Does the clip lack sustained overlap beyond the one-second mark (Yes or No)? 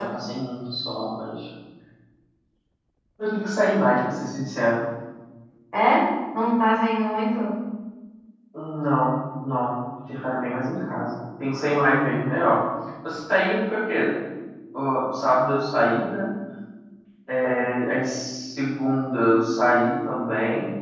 Yes